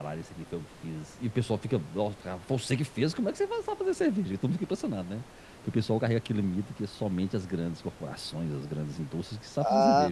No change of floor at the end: No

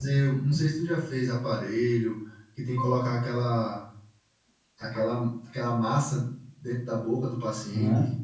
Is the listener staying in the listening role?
No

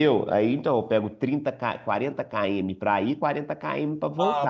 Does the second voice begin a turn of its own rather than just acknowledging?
Yes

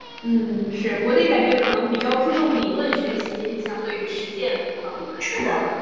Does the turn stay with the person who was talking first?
No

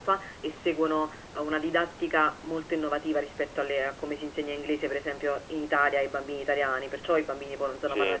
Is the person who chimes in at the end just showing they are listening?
Yes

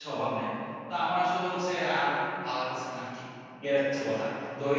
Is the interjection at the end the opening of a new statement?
No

